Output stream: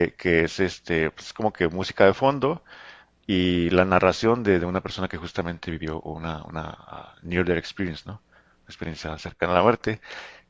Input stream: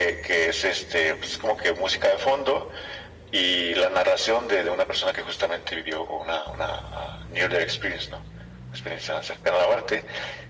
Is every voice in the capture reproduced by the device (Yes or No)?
Yes